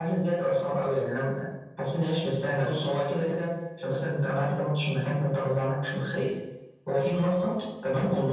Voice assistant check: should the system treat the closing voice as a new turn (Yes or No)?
No